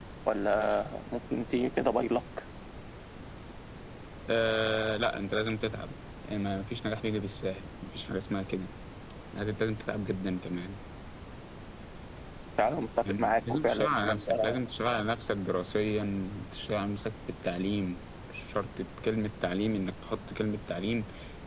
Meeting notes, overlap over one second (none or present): present